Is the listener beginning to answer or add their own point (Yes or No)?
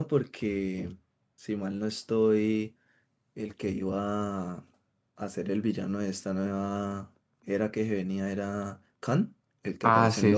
Yes